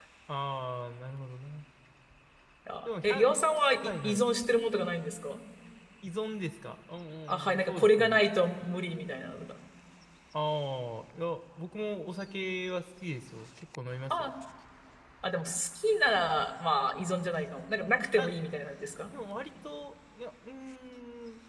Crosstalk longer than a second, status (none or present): present